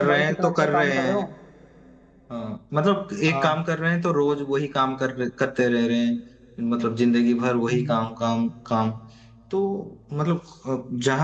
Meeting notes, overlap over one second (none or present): present